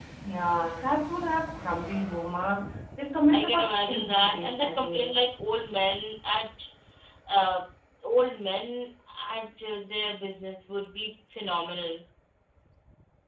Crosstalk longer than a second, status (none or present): present